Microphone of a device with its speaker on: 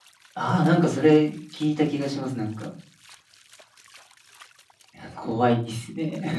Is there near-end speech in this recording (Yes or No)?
Yes